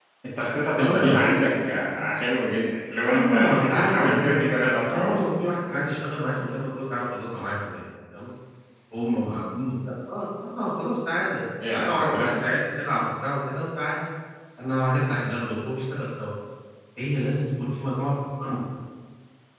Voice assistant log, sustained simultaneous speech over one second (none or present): present